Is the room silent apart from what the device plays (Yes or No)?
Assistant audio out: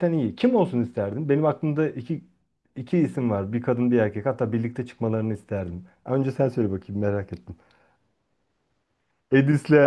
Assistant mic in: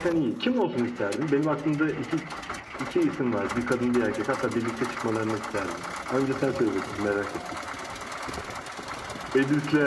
Yes